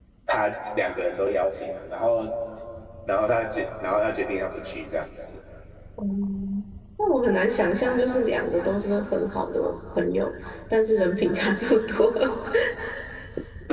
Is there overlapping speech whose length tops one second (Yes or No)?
No